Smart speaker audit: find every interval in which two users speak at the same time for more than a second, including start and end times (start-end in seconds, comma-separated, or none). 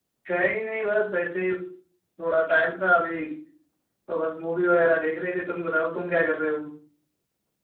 none